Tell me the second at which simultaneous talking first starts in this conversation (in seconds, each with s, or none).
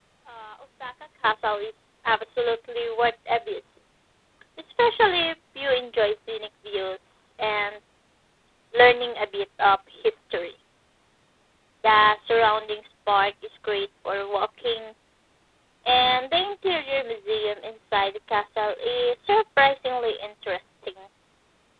none